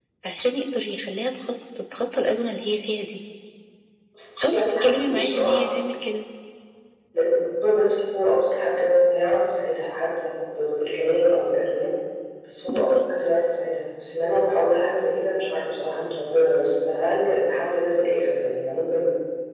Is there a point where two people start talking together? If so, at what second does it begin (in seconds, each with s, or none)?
4.4 s